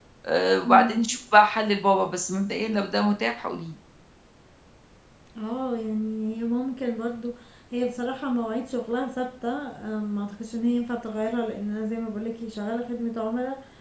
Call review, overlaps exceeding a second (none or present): none